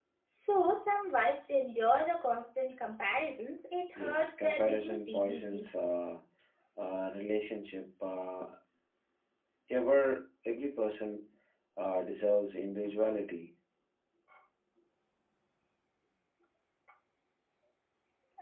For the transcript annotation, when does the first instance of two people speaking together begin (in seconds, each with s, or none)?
4.0 s